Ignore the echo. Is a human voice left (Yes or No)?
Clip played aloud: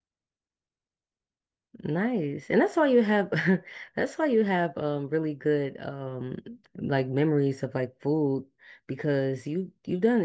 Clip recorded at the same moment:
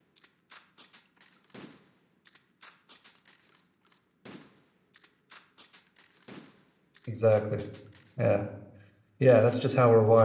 Yes